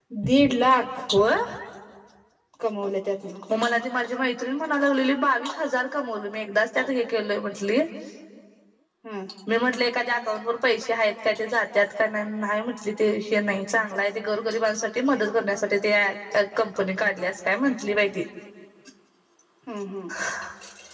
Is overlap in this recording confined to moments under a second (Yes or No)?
Yes